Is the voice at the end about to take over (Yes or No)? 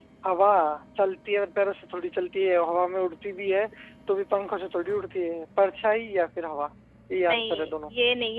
Yes